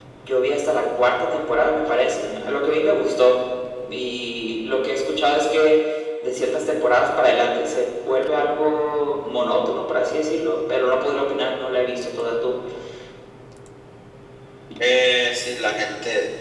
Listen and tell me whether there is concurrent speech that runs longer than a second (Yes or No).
No